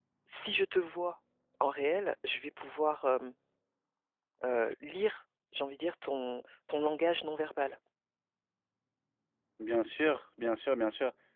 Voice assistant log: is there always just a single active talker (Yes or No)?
Yes